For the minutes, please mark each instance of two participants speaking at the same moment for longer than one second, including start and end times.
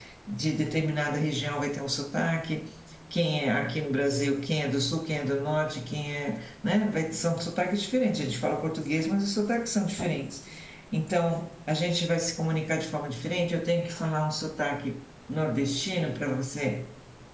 none

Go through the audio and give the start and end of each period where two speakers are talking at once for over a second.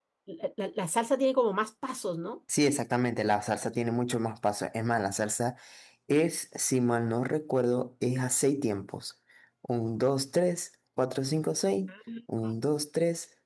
none

